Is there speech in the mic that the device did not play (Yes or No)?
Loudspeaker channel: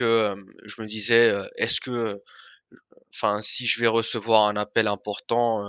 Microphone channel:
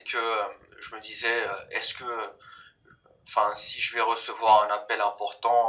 No